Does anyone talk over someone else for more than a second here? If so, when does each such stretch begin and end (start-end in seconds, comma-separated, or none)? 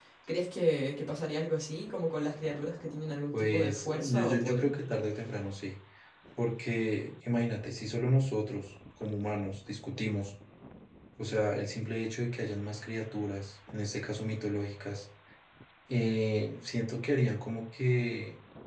3.3-4.7